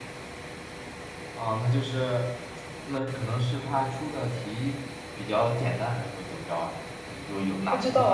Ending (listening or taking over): taking over